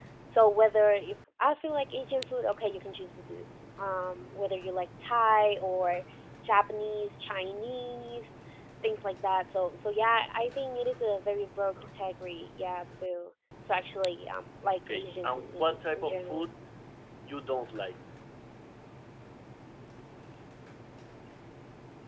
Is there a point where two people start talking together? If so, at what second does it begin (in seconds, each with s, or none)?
14.9 s